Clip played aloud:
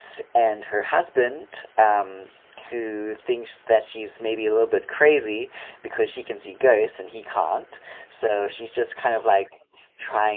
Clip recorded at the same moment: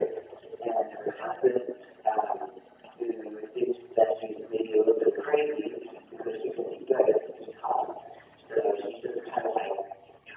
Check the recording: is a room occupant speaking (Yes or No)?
No